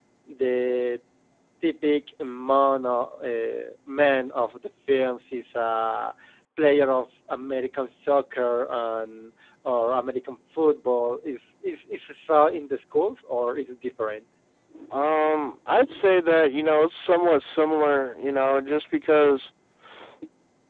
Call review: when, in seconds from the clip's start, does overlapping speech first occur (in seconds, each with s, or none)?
none